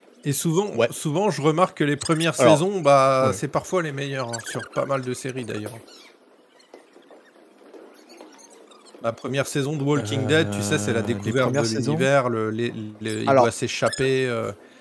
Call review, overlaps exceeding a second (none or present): present